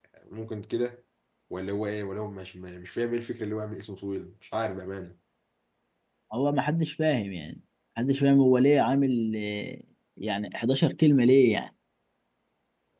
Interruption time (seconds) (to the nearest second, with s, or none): none